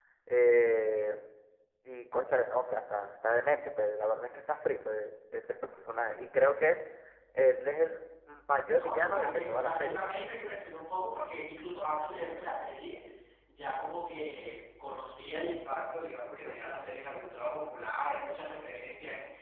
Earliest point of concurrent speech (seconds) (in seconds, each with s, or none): 8.7 s